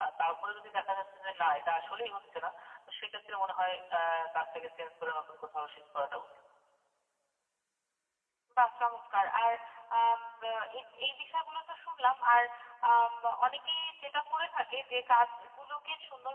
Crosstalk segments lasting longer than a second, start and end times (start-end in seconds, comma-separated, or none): none